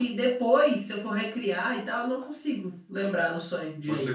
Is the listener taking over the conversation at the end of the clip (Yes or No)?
Yes